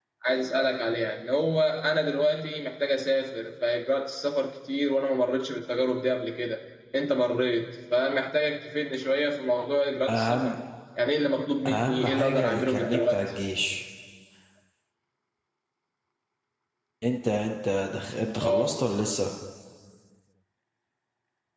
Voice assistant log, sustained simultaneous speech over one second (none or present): present